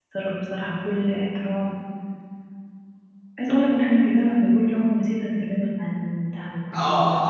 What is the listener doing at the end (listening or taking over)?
taking over